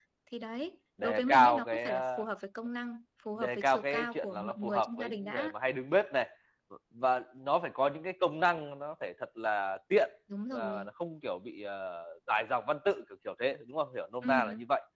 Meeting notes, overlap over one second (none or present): present